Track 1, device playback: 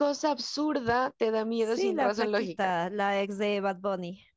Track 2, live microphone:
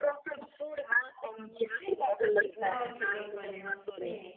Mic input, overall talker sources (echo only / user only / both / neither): both